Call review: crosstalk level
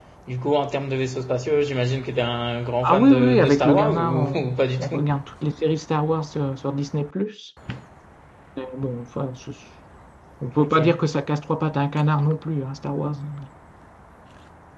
present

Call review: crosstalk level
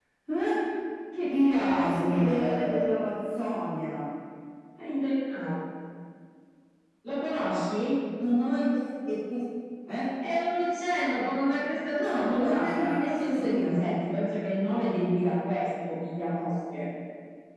present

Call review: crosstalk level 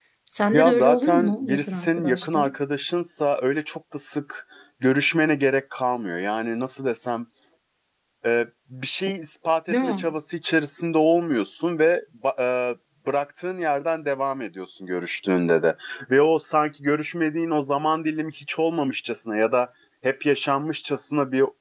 present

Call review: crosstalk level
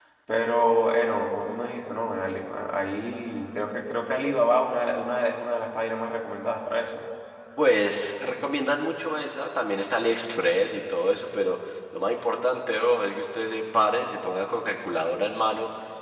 none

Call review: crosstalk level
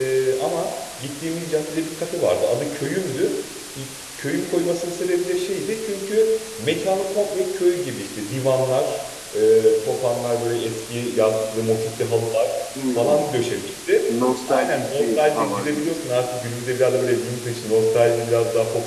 present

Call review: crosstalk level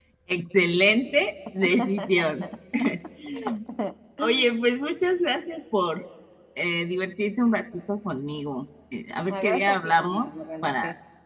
present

